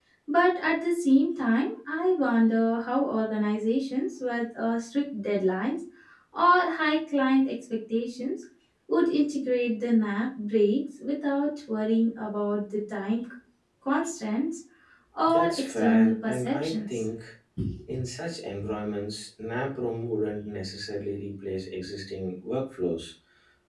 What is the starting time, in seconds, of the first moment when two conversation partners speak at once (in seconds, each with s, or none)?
15.2 s